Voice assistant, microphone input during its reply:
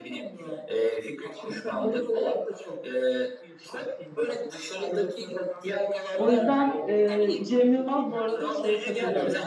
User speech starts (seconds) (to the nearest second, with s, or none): 6 s